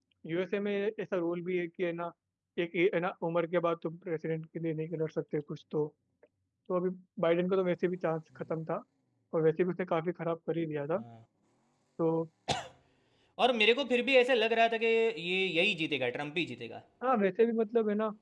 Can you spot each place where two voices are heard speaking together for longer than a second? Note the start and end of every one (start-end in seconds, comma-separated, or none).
none